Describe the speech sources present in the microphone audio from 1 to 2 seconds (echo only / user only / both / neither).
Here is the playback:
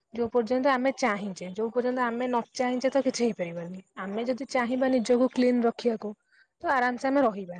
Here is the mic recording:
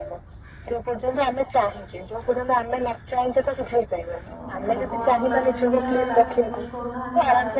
echo only